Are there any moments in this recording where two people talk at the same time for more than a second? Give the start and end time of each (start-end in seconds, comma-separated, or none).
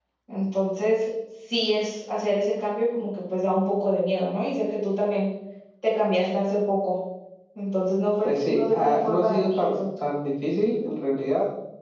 8.2-9.9